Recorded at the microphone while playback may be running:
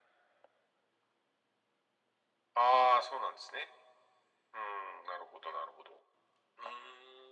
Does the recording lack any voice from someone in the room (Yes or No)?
Yes